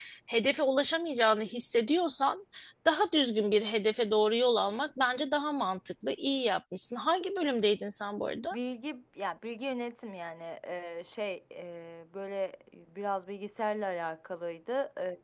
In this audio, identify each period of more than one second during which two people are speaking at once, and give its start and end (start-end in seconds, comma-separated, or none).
none